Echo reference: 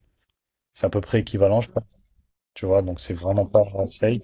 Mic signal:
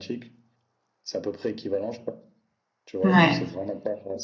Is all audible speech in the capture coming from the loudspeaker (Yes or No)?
No